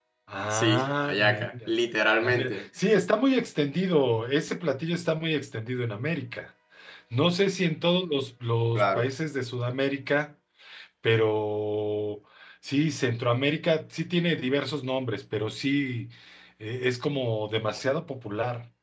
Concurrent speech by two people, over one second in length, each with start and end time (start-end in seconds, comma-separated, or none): 0.5-1.7